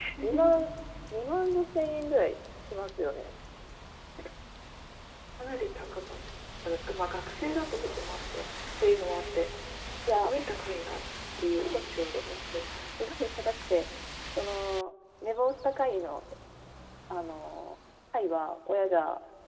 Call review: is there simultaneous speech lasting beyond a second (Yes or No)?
No